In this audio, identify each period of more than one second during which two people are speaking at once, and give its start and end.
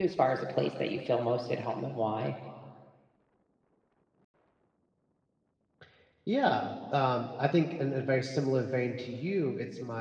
none

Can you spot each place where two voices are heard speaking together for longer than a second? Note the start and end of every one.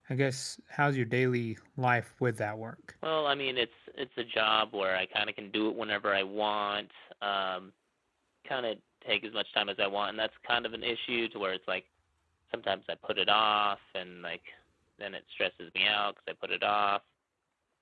none

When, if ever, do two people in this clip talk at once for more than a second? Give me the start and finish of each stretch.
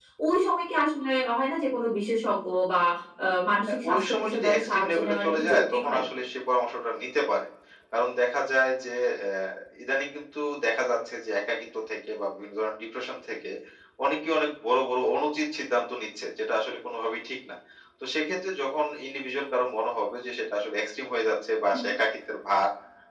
3.7-6.0

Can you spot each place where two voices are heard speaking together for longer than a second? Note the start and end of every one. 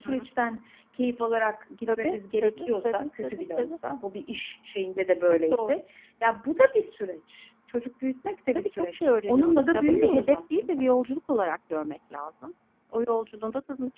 1.9-3.8, 8.6-10.8

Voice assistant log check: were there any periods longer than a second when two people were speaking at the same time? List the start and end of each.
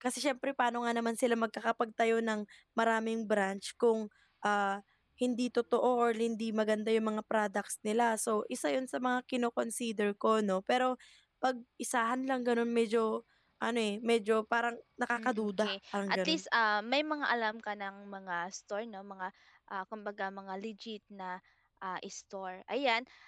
15.2-16.4

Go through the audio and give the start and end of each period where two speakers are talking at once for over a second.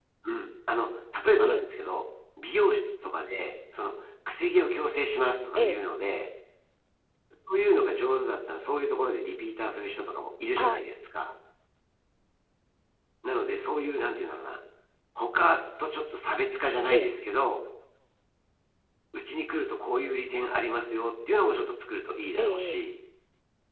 none

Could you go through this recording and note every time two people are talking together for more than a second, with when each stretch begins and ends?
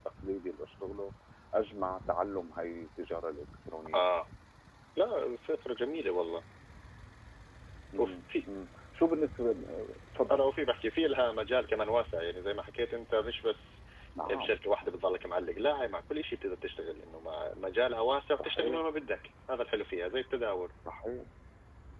none

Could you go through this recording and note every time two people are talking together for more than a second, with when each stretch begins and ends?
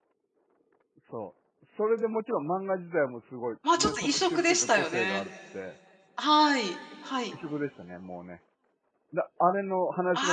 3.8-5.2

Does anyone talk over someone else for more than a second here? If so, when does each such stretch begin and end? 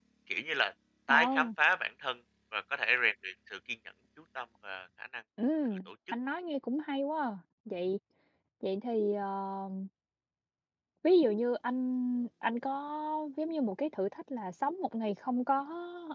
none

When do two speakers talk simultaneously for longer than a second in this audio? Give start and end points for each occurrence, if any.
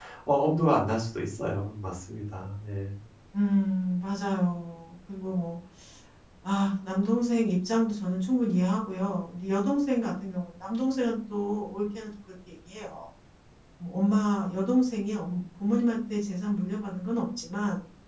none

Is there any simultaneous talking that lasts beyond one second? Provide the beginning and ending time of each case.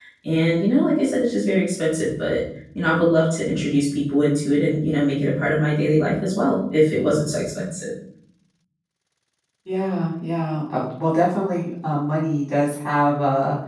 none

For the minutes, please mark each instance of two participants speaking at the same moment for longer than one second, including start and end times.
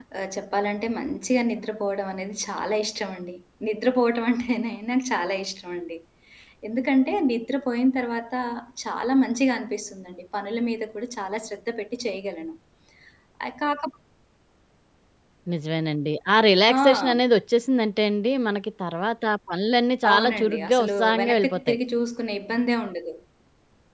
20.1-21.8

